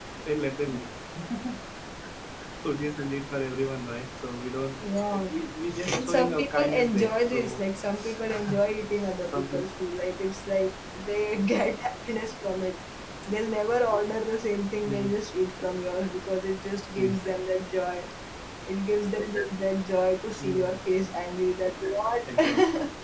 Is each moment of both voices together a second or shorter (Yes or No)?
No